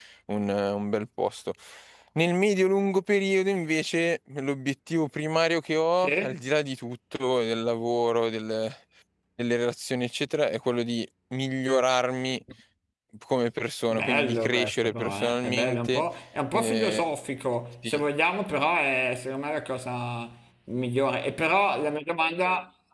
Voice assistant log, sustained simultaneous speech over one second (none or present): present